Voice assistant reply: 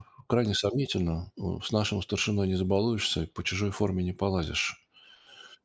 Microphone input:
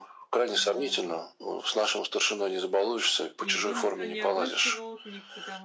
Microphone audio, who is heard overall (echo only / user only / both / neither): both